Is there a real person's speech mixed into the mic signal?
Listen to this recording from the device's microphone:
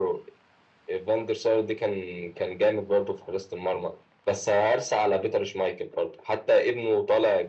No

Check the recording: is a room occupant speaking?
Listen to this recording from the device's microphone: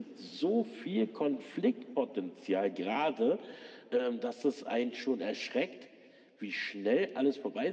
No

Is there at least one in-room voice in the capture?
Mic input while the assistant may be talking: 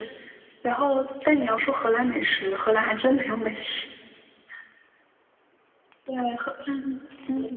No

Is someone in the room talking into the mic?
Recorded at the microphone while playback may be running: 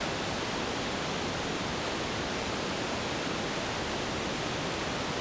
No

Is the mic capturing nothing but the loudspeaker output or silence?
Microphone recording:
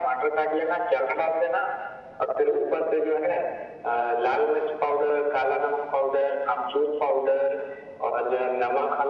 Yes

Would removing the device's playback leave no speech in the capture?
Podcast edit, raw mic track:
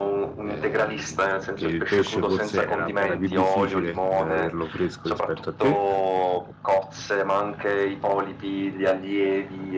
No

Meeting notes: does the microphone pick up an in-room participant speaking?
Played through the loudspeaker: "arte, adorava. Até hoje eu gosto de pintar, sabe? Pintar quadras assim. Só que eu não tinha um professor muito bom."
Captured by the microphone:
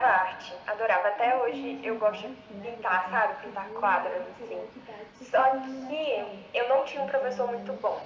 Yes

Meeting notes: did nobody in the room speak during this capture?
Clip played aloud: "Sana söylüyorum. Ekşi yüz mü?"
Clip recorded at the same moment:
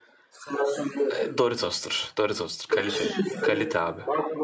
No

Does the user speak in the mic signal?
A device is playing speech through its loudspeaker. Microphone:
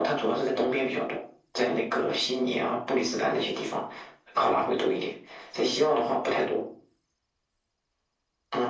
No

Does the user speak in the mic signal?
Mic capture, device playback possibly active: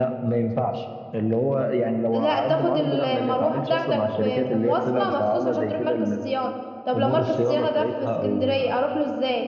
No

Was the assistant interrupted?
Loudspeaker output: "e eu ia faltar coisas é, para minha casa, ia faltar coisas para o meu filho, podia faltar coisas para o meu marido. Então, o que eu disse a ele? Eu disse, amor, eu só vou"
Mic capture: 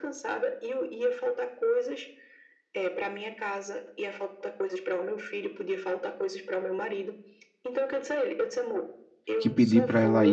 Yes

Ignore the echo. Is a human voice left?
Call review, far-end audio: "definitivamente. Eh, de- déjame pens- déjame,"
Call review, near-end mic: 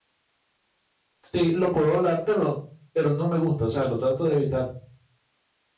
Yes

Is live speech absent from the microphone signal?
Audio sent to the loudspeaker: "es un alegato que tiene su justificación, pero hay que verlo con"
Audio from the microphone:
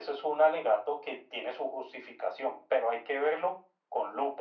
Yes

